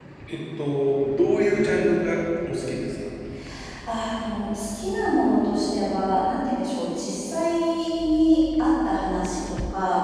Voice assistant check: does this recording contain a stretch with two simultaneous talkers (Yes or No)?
No